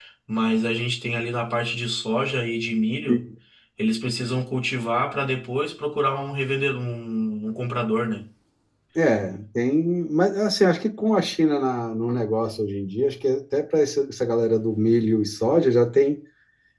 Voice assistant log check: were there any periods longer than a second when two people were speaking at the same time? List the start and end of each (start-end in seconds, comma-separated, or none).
none